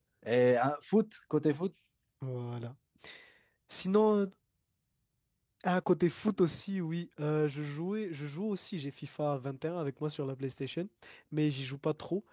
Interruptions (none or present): none